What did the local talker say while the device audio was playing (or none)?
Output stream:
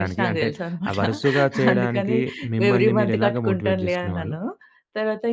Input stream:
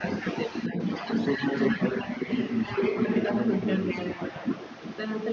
none